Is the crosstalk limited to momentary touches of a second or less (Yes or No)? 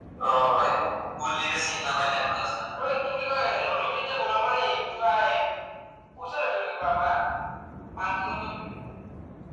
Yes